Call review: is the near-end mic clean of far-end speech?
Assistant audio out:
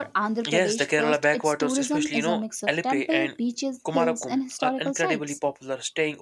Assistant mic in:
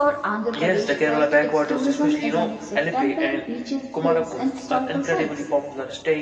No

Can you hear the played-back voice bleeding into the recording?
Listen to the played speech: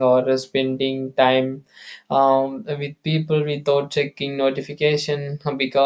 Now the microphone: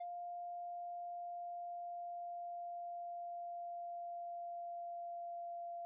No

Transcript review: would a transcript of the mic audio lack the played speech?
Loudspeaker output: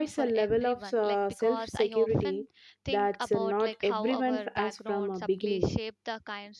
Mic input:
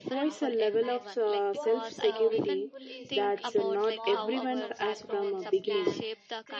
No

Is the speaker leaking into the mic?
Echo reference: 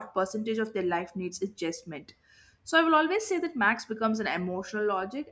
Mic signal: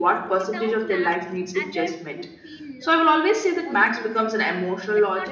Yes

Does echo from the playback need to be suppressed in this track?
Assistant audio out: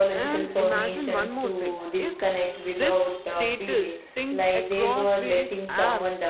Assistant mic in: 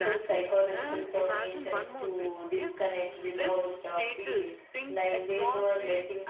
Yes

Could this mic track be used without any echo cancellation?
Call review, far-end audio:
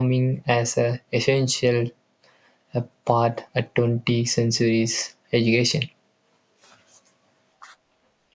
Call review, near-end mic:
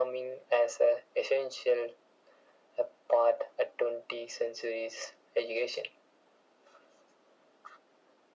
No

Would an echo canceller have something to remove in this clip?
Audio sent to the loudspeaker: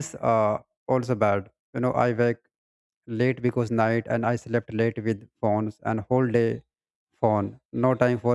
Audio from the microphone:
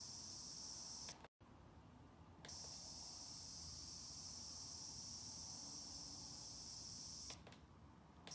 No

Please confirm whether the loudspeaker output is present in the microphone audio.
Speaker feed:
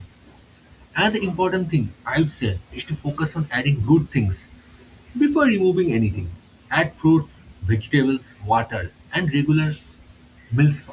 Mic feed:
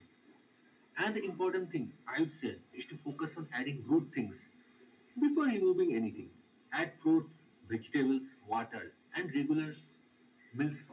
Yes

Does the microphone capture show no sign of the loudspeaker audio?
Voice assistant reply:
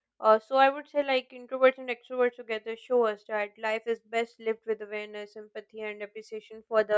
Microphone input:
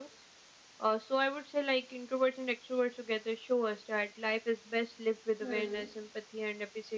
No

